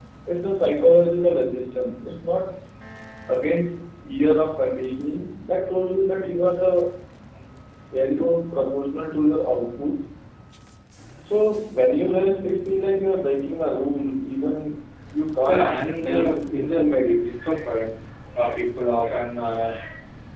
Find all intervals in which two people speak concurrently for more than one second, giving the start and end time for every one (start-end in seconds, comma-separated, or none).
15.5-17.3